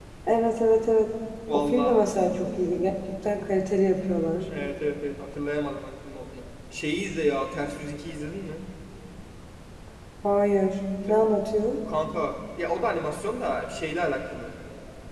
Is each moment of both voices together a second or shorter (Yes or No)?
Yes